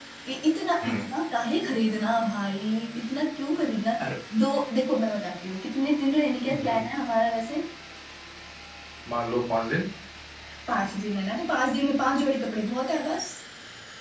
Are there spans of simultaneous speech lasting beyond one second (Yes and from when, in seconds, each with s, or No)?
No